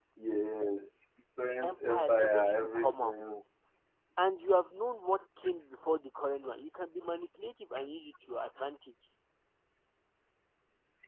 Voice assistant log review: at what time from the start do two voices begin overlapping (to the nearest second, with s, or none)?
2 s